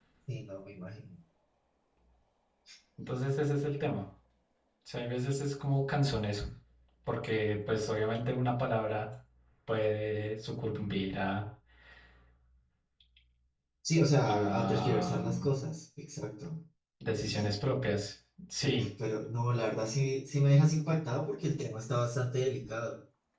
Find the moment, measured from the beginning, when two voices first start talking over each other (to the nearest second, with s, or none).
14 s